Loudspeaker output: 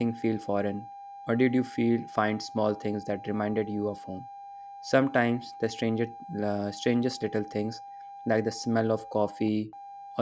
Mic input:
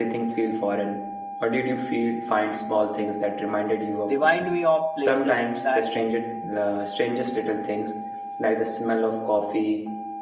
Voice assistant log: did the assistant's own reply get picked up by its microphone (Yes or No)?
Yes